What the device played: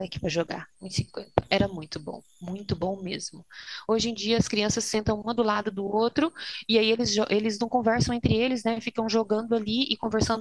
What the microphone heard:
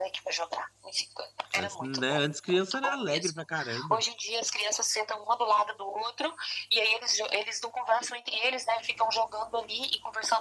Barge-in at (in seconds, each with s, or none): 1.5 s